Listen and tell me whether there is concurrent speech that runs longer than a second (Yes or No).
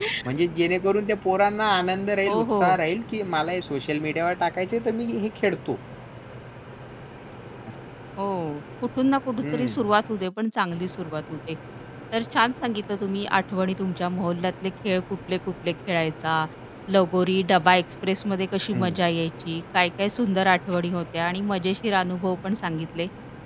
No